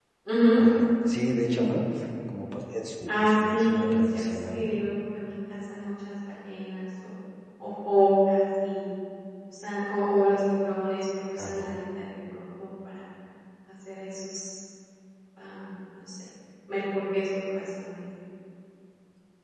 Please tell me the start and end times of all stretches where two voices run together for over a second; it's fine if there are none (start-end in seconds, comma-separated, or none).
3.1-4.8